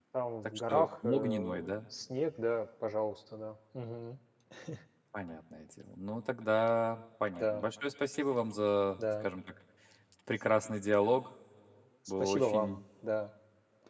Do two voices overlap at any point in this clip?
Yes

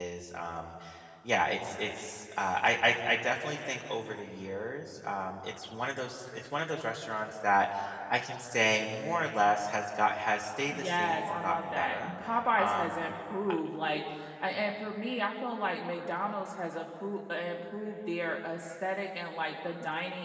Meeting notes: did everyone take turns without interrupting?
No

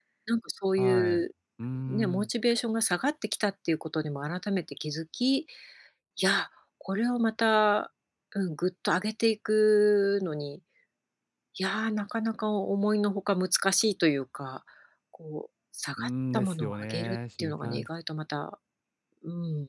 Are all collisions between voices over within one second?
No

